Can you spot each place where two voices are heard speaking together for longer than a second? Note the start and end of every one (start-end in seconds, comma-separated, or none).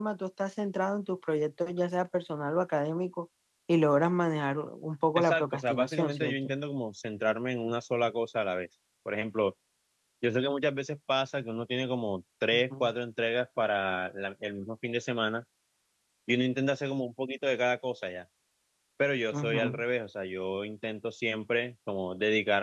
5.2-6.5